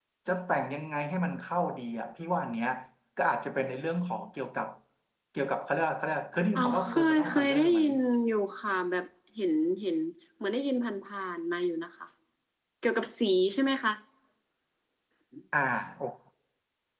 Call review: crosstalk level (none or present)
present